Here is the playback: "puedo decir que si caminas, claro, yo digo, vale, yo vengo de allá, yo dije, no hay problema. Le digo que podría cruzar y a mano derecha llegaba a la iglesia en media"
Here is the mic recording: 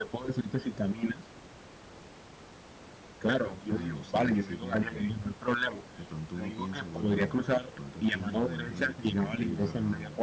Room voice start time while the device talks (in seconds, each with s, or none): 3.6 s